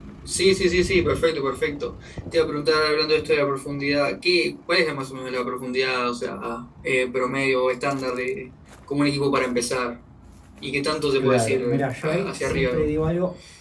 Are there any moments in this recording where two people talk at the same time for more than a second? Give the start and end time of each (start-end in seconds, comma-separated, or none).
11.2-12.9